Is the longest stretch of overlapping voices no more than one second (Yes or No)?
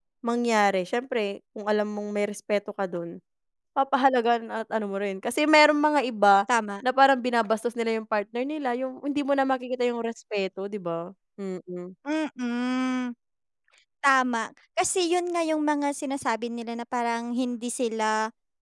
Yes